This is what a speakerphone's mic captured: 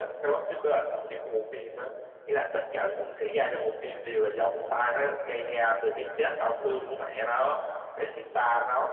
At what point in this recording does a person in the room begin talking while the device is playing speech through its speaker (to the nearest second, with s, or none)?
none